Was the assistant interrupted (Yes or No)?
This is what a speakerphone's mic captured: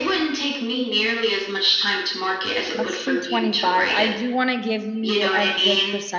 Yes